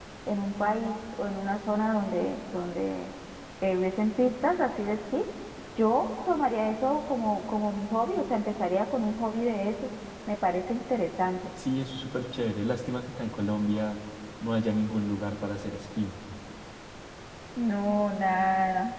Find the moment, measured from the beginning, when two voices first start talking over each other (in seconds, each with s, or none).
none